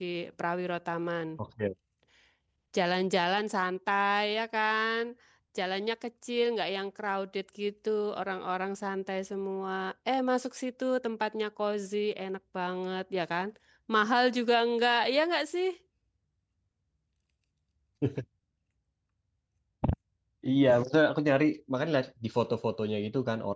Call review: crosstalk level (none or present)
none